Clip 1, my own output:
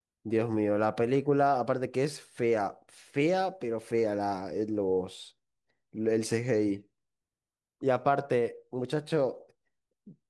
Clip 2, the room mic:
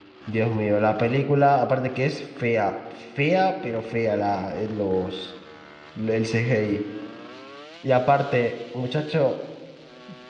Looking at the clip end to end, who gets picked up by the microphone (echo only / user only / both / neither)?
echo only